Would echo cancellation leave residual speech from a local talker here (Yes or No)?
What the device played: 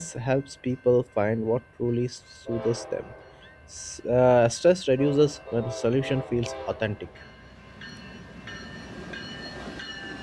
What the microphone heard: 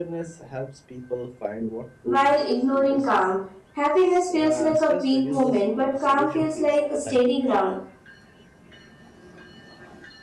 Yes